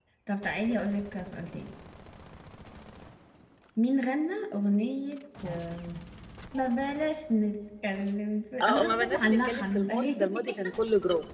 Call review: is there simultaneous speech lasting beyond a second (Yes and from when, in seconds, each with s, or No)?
Yes, from 8.6 s